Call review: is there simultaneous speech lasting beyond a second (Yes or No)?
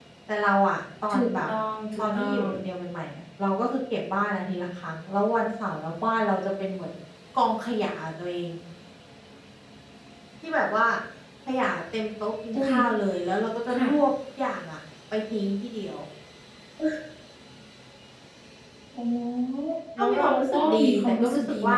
Yes